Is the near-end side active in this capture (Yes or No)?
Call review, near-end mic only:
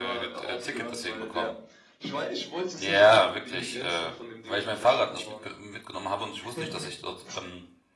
Yes